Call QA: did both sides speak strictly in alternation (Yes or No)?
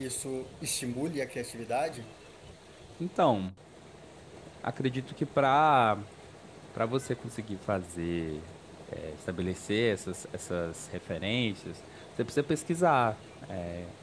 Yes